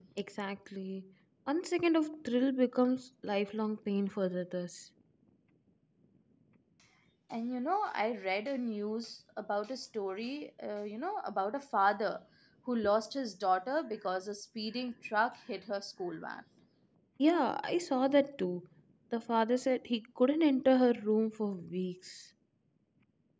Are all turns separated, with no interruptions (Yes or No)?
Yes